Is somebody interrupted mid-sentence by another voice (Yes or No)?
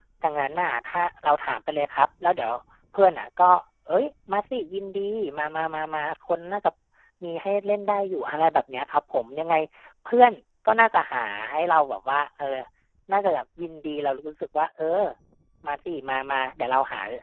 No